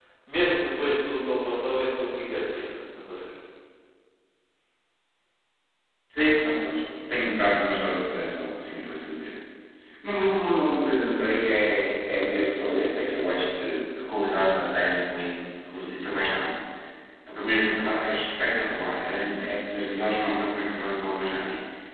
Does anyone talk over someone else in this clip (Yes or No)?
No